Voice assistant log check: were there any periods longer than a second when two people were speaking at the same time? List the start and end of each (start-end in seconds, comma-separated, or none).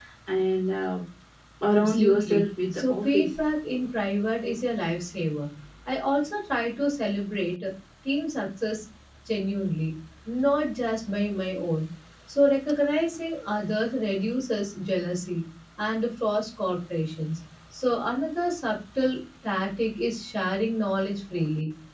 1.7-3.3